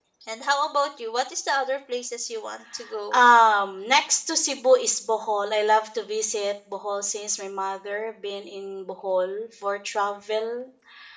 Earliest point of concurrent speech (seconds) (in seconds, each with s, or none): none